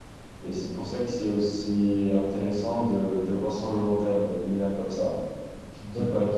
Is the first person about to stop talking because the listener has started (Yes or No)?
No